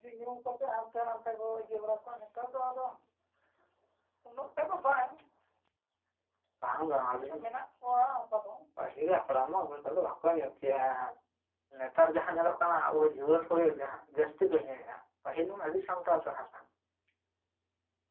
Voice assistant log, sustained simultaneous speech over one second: none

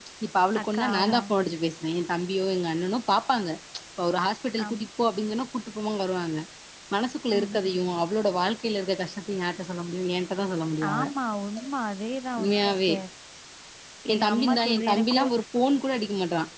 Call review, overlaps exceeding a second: present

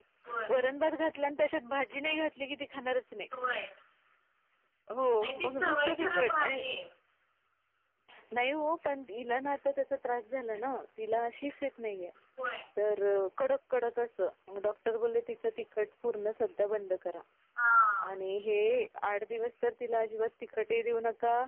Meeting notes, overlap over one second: present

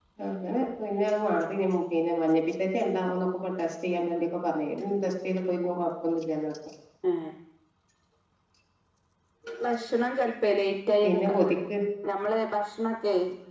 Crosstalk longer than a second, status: none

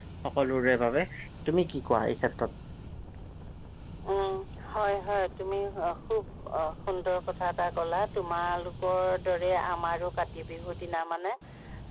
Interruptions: none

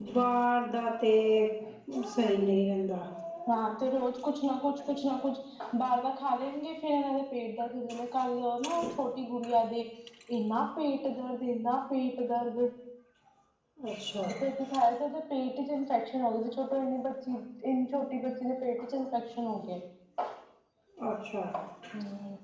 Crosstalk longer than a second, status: none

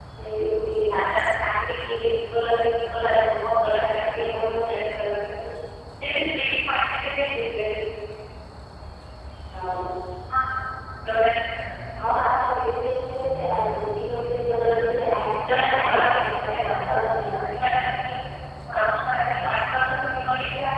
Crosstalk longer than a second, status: present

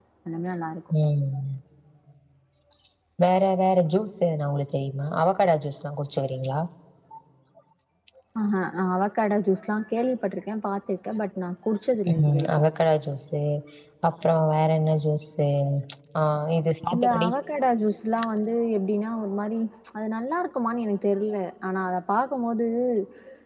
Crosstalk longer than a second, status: none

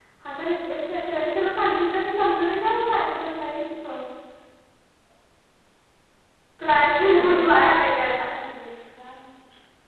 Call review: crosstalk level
present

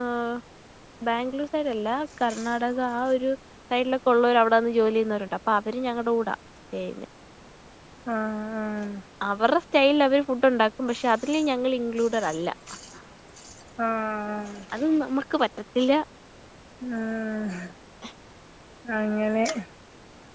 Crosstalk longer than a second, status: none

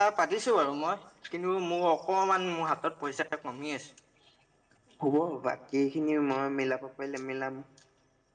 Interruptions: none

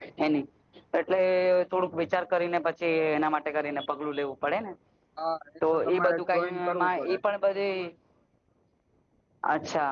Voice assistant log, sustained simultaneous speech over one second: present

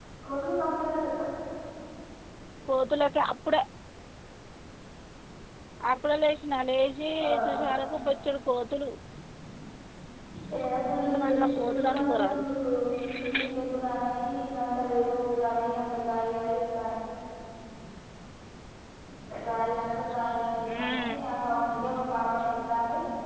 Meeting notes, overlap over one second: present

